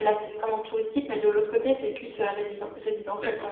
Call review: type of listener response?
taking over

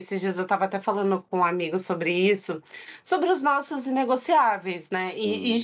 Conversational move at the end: listening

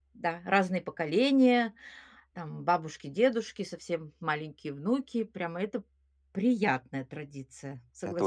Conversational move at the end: taking over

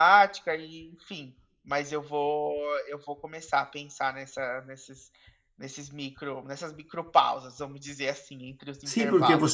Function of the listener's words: taking over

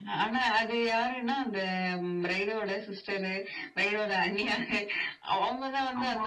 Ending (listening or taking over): listening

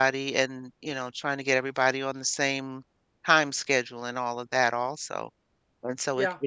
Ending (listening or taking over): listening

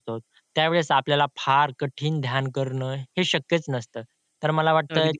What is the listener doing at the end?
listening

